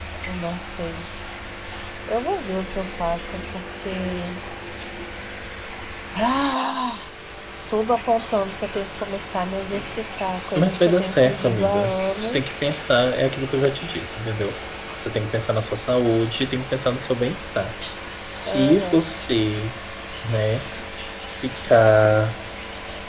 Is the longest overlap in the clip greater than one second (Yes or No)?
Yes